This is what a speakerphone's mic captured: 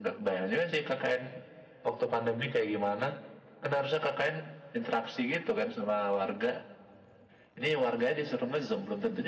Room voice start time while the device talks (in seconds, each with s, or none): none